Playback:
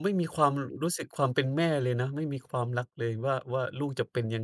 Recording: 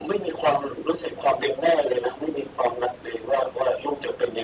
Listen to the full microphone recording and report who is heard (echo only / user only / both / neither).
echo only